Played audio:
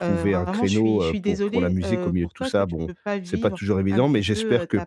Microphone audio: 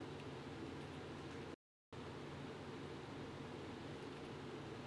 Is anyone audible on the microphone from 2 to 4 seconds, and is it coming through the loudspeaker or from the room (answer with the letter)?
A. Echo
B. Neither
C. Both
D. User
B